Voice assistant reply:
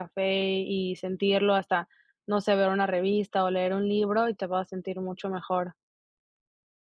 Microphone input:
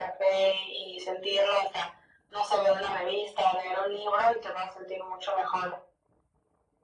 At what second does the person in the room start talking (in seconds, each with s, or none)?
none